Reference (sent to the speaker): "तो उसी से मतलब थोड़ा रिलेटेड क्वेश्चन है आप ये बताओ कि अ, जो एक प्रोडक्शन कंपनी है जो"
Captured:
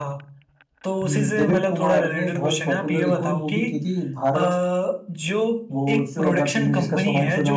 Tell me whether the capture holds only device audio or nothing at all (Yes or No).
No